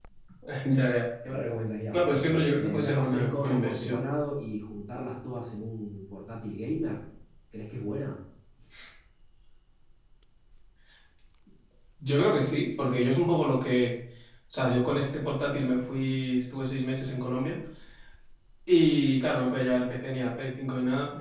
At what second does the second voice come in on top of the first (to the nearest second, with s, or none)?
2 s